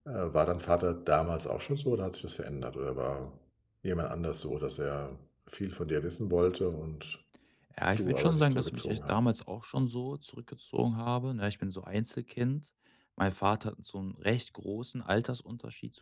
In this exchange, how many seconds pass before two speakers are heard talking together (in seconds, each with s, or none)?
8.0 s